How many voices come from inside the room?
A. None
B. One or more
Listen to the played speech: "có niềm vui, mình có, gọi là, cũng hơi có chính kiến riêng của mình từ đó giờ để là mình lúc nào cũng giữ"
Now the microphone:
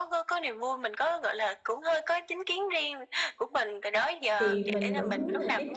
B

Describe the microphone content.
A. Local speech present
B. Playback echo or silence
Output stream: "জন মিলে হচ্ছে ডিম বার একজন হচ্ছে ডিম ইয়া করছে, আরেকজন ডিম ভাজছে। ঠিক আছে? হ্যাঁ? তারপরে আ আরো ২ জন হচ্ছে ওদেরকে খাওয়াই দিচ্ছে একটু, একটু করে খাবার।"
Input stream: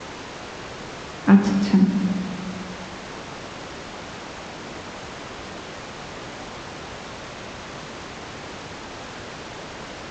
A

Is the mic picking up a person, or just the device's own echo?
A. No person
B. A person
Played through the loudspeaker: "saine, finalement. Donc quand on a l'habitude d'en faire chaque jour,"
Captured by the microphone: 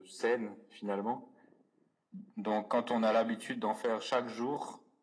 A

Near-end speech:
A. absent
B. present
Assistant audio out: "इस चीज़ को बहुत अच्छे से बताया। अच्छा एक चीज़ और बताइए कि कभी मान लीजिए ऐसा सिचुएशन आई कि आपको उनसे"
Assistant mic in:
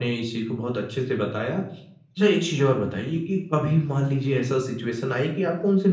A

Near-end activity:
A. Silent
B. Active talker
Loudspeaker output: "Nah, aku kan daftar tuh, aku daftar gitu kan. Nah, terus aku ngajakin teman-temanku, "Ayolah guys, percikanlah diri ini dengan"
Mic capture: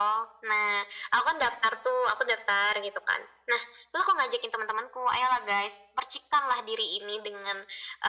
A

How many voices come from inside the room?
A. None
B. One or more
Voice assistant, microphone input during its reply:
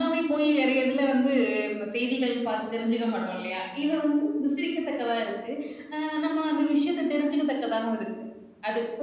A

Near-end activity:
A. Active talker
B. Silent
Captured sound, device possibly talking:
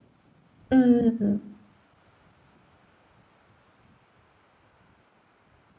A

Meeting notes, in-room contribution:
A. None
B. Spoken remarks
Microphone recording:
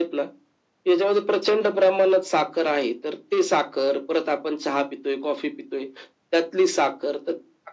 A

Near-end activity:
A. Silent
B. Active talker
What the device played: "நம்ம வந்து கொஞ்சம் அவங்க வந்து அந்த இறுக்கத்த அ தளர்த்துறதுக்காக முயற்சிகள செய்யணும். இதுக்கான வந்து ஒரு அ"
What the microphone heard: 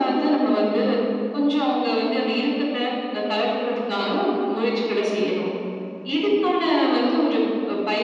A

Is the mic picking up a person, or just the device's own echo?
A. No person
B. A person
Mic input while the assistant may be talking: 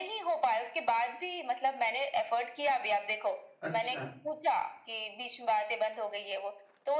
B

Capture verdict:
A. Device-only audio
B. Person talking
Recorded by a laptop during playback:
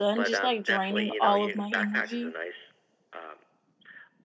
B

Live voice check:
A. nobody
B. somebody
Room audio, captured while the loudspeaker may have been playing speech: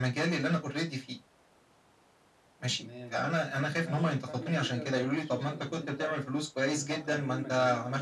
B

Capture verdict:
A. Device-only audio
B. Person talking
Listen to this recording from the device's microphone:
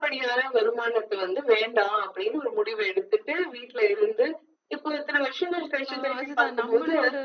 B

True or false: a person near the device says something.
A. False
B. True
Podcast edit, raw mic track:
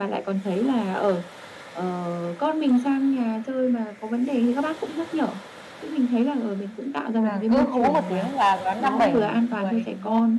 B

